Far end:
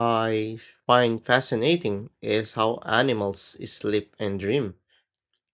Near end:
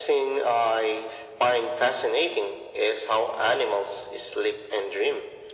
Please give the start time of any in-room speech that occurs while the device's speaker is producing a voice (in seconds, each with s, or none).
none